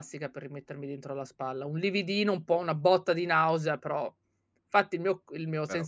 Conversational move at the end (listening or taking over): listening